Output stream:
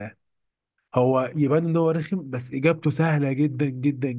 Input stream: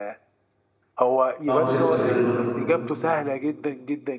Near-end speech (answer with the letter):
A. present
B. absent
A